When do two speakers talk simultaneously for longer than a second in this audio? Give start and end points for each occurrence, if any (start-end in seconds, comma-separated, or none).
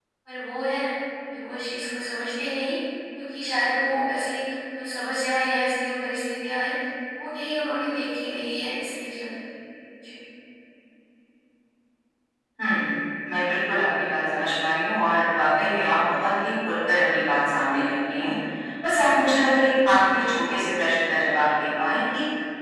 none